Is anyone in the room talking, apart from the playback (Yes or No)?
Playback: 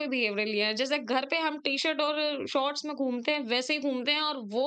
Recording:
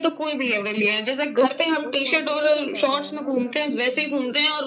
Yes